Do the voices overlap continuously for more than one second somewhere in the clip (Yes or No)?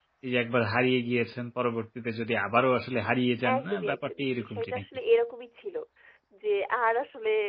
Yes